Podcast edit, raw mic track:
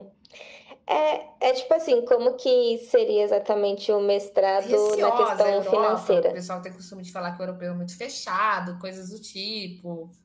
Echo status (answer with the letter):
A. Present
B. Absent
A